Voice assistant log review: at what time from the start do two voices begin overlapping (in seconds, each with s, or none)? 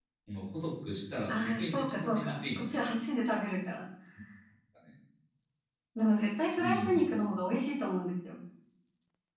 1.3 s